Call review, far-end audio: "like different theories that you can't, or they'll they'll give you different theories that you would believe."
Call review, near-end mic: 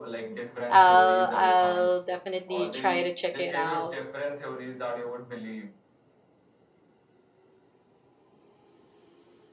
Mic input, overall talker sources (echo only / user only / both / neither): both